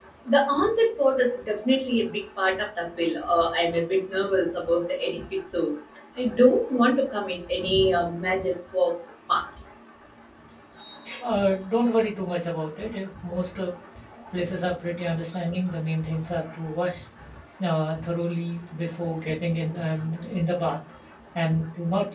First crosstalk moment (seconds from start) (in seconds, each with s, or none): none